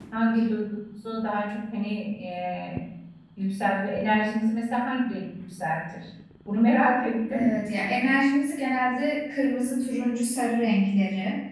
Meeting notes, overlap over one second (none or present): none